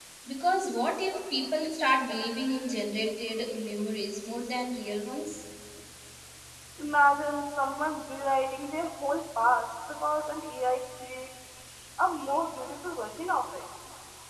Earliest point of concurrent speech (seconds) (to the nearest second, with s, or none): none